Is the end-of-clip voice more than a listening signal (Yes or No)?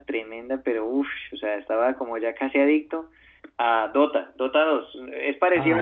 Yes